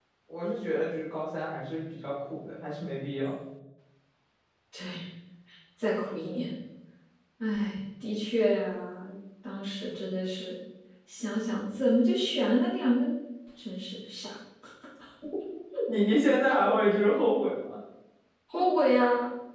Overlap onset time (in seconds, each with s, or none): none